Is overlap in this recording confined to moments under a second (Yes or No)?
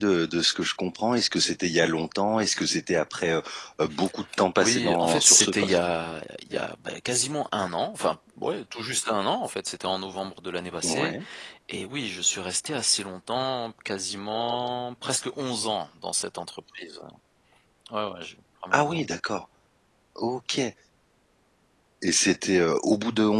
No